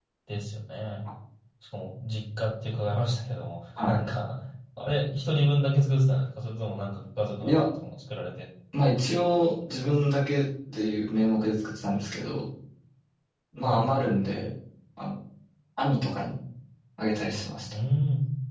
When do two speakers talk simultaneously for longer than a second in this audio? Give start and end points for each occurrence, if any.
none

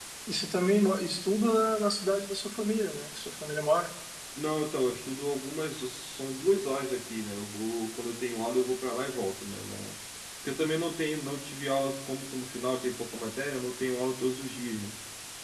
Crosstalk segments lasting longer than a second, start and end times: none

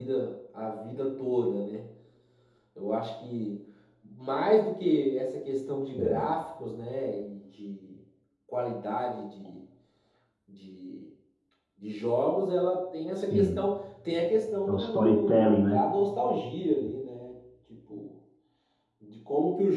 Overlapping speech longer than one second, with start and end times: 14.7-15.9

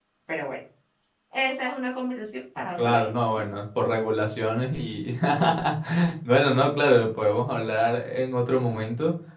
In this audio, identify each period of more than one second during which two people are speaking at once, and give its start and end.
none

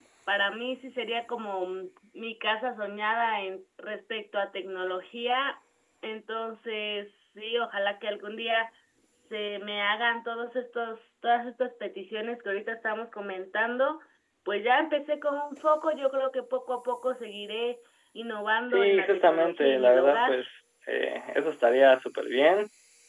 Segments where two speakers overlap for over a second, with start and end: 18.7-20.3

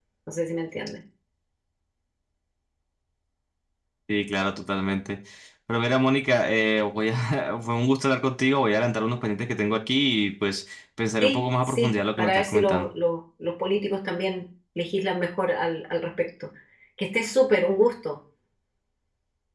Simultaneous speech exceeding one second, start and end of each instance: 11.2-12.9

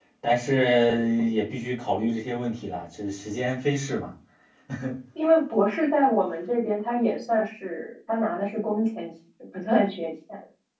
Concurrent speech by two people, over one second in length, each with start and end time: none

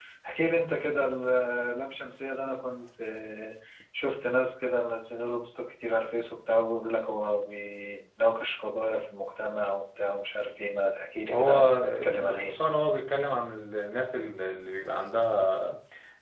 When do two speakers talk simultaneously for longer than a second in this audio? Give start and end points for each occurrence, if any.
11.3-12.6

